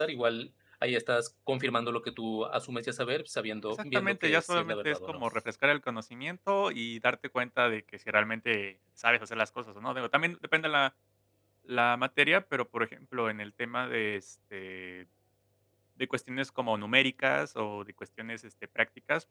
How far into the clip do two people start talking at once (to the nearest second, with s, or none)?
4 s